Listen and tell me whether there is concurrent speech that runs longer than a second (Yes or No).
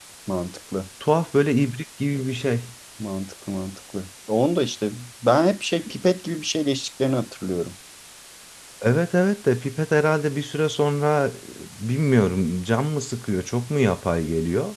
No